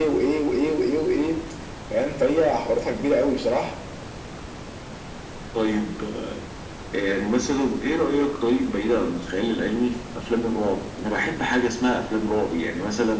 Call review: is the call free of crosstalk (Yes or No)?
Yes